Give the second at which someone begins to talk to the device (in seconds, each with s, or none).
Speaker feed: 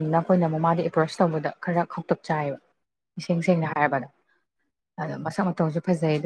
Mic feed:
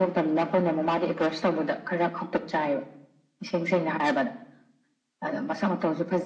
none